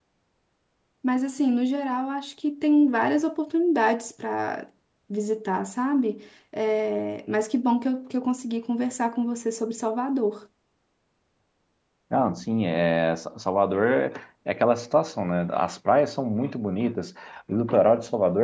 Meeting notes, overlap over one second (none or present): none